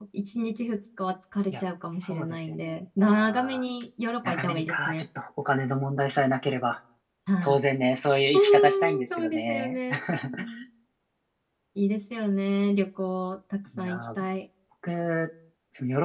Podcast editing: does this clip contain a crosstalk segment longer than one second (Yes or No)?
Yes